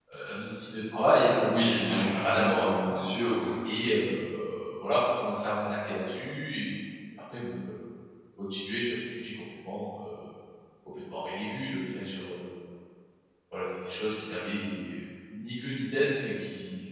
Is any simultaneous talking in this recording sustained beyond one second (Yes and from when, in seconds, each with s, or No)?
Yes, from 1.5 s